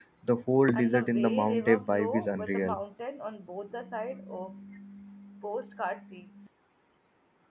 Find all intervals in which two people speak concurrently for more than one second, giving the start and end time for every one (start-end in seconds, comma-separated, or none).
0.7-2.8